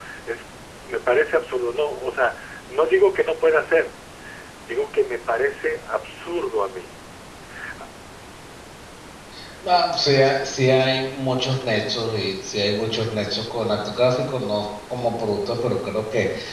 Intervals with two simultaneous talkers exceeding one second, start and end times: none

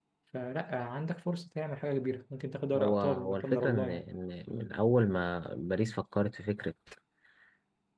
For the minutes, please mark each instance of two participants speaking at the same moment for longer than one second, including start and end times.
2.8-4.0

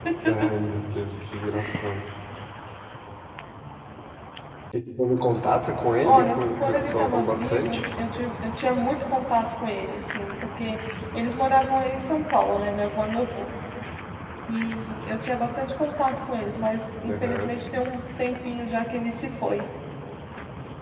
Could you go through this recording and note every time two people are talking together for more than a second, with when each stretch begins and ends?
6.0-7.8

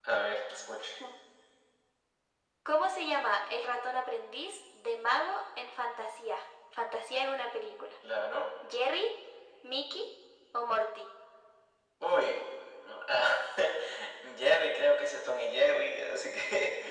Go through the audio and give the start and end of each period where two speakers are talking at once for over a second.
none

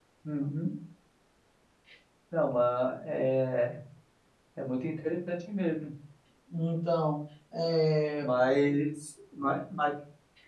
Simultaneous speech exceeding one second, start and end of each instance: none

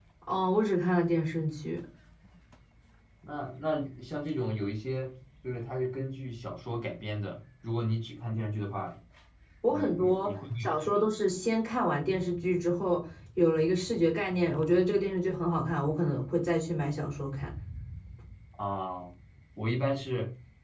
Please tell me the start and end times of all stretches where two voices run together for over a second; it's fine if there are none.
9.7-11.0

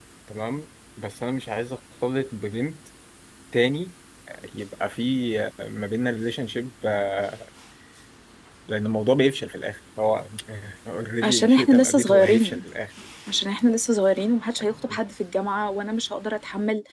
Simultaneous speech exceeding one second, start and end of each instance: 11.2-12.6

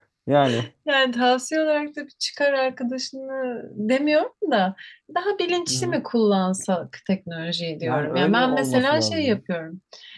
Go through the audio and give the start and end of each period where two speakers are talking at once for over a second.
7.8-9.4

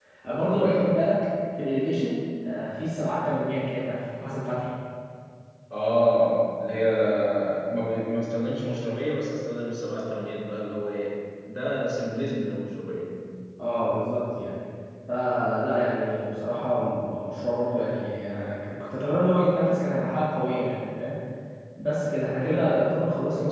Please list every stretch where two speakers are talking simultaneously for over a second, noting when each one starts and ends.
none

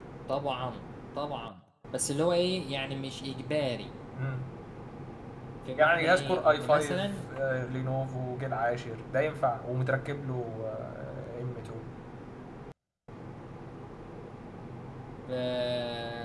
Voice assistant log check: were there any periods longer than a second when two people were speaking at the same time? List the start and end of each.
5.8-7.2

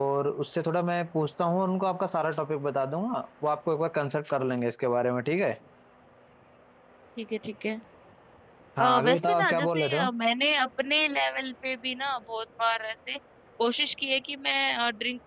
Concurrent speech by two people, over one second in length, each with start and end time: 8.8-10.0

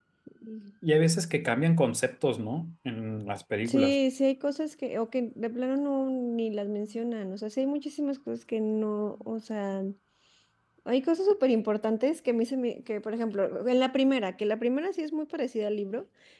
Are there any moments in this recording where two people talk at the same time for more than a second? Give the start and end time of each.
none

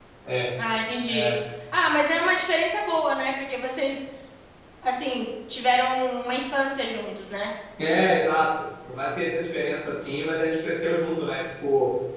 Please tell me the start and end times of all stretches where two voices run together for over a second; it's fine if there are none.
none

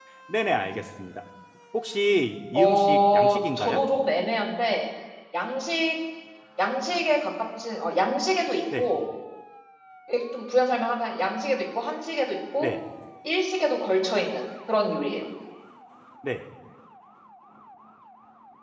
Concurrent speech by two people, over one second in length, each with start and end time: 2.5-3.8

